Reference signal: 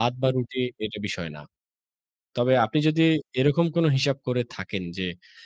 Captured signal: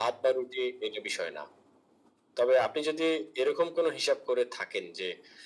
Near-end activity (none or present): none